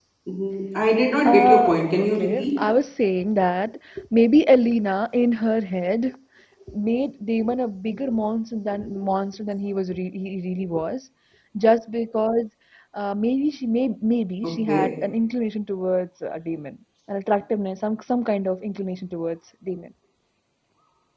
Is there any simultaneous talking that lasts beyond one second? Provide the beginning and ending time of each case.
1.2-2.6

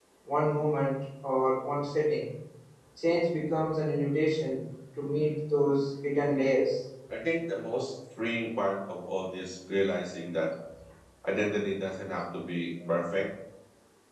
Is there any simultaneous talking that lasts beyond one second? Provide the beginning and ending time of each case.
none

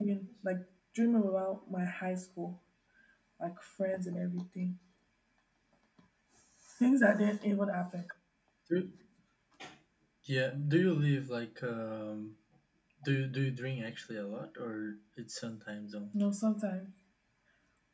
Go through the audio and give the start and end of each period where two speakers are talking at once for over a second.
none

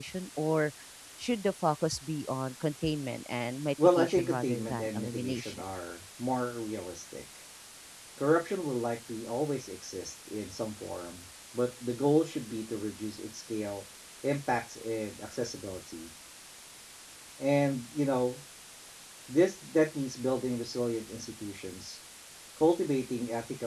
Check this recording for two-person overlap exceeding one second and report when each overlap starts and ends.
4.0-5.6

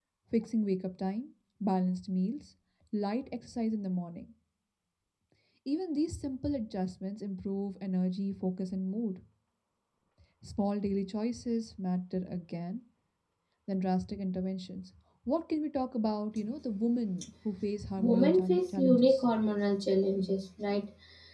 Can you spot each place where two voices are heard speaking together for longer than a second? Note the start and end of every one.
18.0-19.2

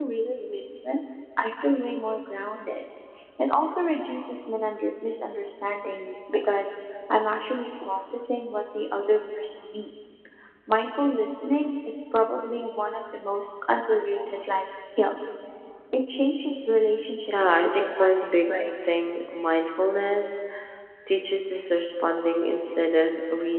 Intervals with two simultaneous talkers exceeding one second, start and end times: 17.3-18.5

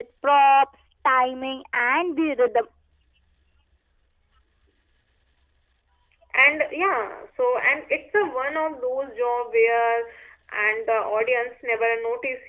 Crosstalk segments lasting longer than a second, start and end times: none

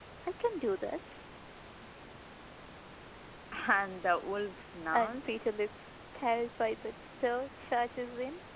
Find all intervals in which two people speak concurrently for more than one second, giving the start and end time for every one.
none

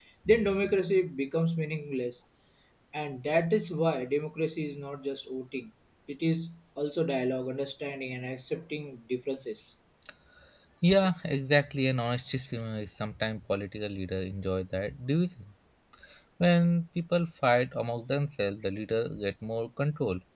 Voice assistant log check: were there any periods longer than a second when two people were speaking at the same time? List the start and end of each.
none

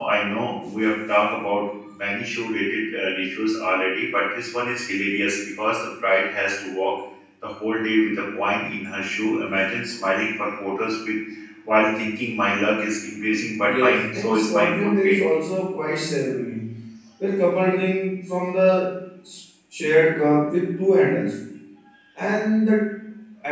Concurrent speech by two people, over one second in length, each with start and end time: 13.6-15.2

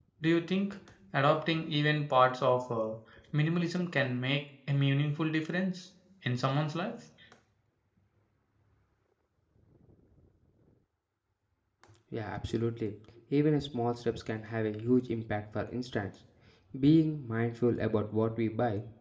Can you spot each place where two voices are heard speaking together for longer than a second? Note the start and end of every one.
none

